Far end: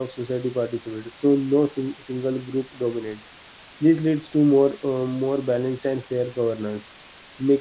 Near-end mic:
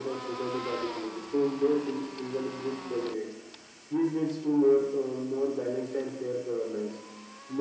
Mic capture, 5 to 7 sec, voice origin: echo only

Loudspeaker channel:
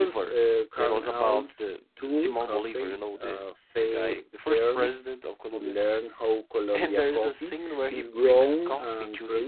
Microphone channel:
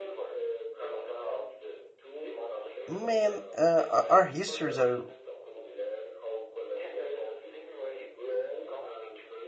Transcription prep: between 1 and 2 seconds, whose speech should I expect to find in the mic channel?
echo only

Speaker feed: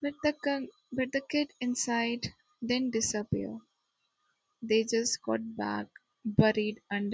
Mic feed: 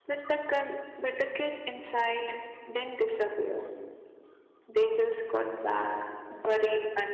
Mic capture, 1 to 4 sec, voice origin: echo only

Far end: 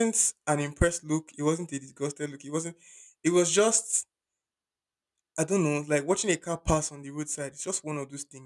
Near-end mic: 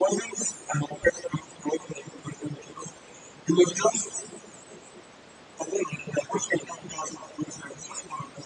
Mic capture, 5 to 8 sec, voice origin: echo only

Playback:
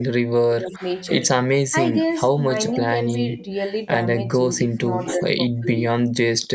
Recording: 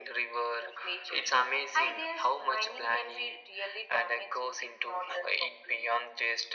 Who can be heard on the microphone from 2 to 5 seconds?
echo only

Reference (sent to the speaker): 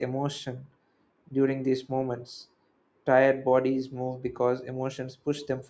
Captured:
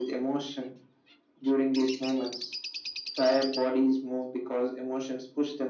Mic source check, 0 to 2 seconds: echo only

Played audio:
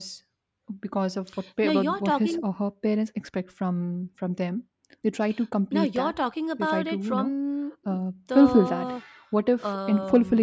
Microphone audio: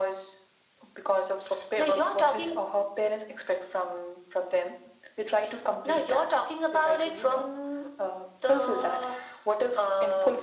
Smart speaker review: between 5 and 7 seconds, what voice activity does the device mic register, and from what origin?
echo only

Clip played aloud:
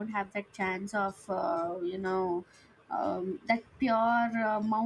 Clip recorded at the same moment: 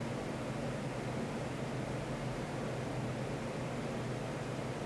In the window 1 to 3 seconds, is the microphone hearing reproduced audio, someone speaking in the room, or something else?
neither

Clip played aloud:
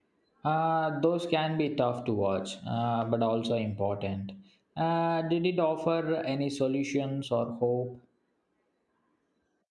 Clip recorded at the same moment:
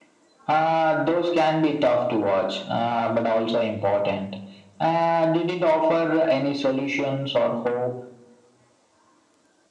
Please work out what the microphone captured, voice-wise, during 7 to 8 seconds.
echo only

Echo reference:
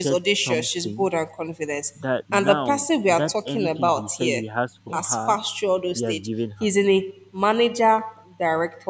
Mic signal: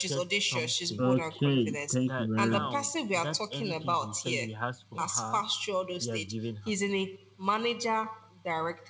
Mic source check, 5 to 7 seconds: echo only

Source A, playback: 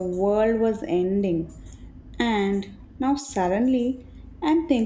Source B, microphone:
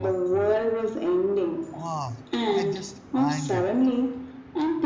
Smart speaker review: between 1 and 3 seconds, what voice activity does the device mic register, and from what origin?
both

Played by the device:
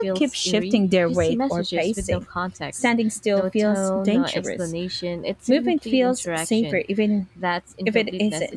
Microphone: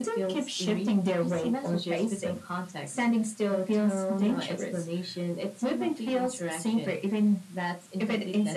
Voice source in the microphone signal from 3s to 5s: echo only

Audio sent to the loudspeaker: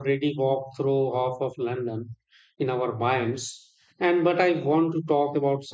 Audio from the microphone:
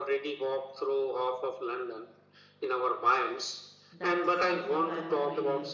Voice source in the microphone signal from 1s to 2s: echo only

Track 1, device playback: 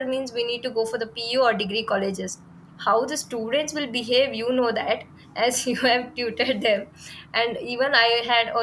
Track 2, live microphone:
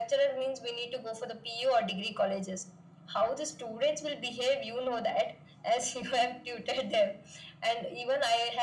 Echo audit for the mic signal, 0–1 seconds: echo only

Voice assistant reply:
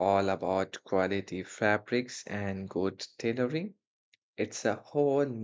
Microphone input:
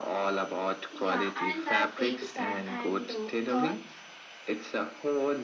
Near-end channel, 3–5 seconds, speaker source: both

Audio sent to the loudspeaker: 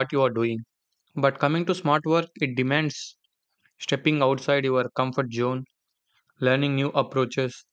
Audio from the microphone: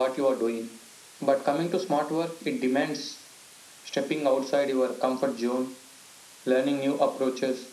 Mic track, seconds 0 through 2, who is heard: echo only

